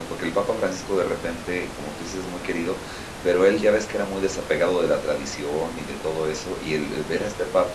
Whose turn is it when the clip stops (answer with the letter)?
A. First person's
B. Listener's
A